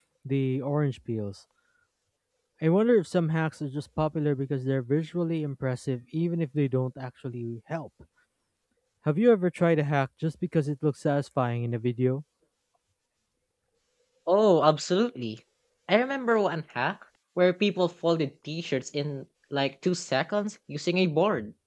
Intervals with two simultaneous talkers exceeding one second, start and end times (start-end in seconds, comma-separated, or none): none